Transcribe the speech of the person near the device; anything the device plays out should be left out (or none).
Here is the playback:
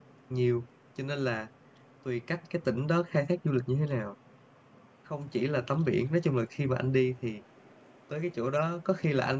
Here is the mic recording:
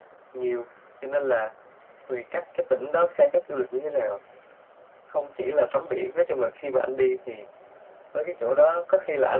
none